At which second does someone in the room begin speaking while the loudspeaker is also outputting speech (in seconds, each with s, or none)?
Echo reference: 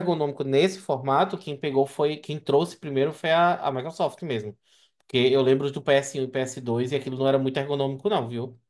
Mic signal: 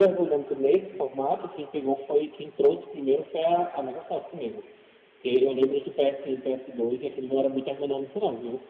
none